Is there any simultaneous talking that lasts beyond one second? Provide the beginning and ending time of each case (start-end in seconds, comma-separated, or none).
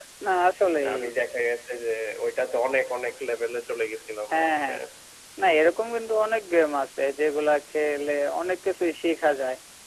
none